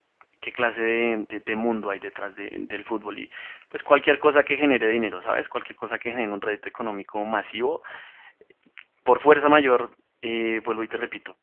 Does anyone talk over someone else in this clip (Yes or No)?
No